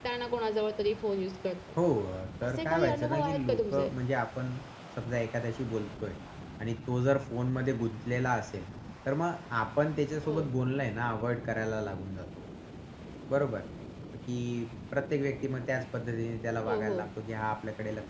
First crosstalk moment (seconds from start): 2.4 s

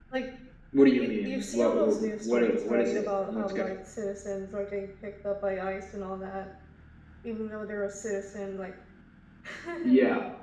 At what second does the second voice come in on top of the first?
0.9 s

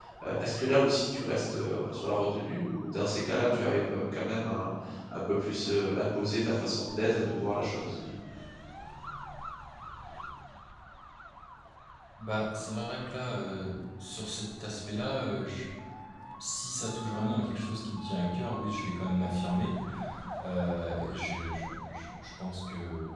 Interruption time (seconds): none

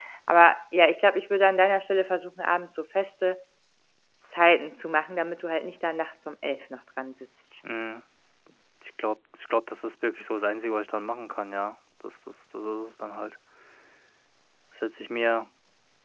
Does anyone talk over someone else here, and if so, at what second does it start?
none

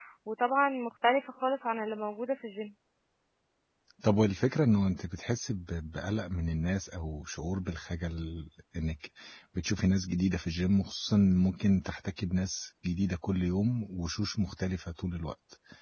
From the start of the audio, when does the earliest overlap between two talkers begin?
none

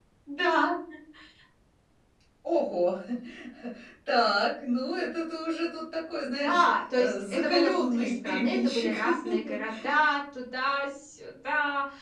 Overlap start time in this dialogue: 6.4 s

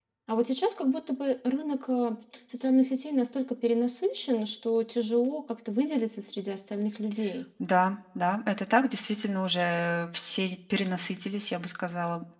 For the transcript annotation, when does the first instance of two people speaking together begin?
none

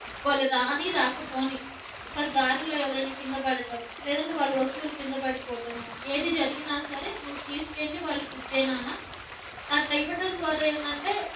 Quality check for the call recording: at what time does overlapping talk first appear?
none

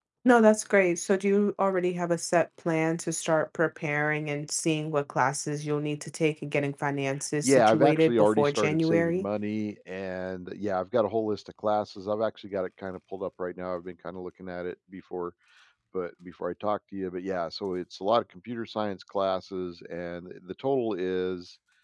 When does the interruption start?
7.4 s

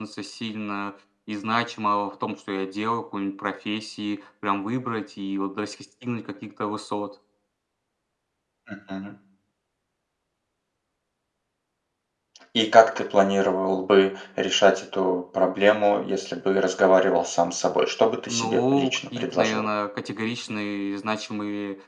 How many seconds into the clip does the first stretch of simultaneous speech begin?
18.3 s

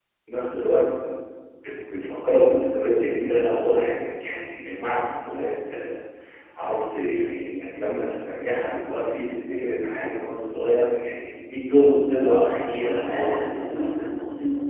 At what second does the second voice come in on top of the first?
12.2 s

